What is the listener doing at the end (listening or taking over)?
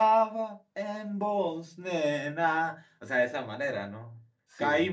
listening